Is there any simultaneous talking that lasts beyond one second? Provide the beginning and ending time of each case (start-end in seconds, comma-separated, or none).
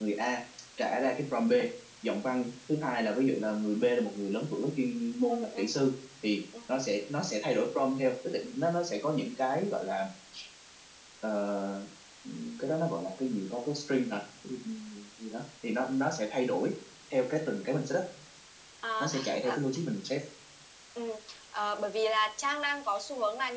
none